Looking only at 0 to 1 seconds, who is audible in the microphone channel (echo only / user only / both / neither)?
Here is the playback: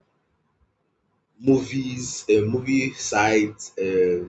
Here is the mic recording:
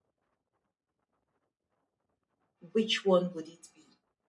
neither